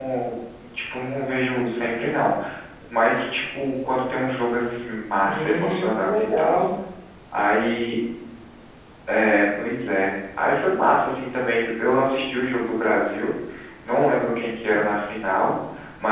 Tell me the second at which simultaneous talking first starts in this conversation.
5.2 s

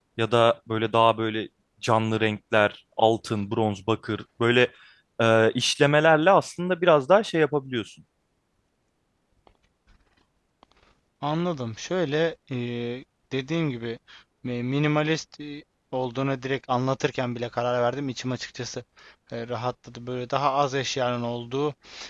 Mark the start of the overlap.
none

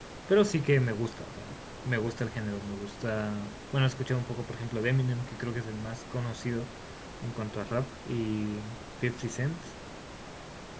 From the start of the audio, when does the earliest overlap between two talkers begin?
none

